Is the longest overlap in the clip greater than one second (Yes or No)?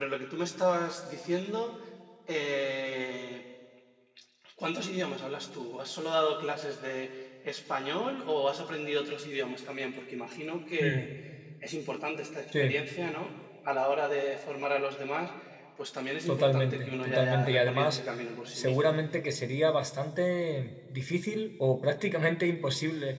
Yes